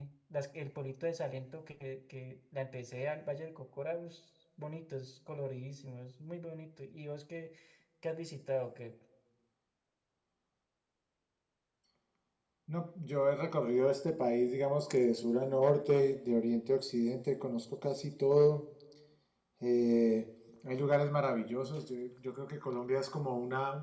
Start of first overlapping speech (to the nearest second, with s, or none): none